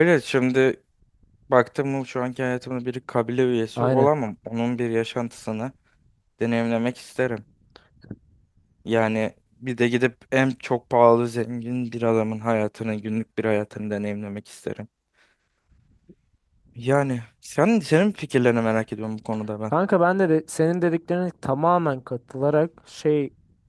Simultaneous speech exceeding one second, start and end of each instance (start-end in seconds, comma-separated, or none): none